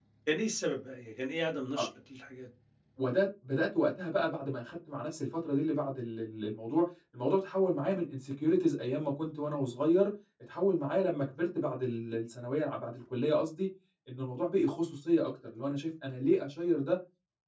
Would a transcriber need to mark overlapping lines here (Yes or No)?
No